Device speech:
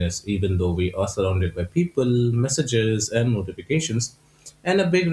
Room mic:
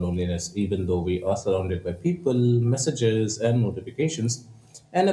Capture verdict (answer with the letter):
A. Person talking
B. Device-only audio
B